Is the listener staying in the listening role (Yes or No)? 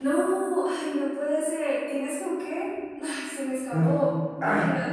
No